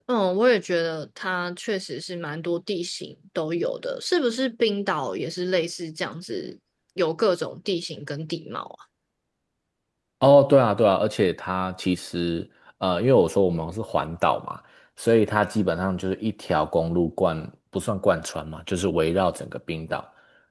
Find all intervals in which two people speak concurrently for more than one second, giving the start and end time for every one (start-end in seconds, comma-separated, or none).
none